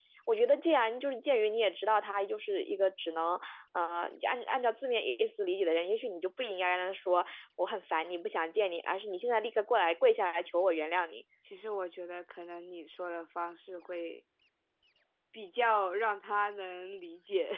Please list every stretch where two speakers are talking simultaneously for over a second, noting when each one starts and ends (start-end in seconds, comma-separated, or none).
none